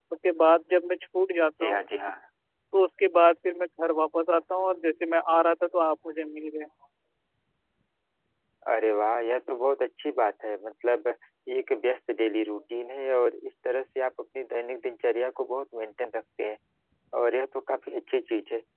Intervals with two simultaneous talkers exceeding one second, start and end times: none

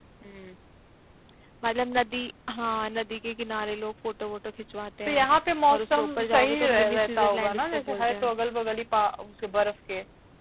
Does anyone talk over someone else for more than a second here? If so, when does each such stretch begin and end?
5.7-8.3

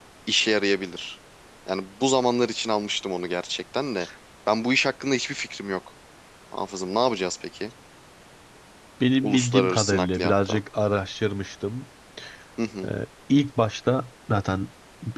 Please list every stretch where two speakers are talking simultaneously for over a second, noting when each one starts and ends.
9.2-10.6

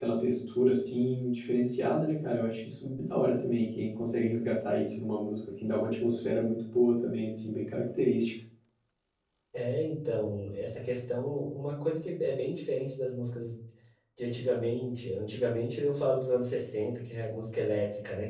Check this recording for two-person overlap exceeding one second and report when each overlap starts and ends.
none

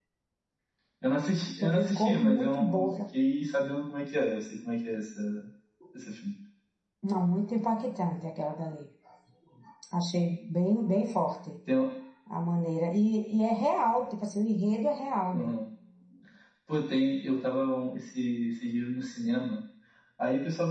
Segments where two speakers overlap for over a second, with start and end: 1.6-2.9

